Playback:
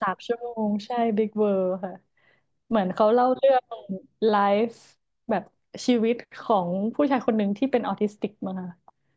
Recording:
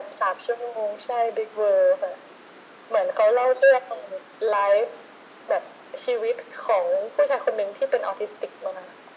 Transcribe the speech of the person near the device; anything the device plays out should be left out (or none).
none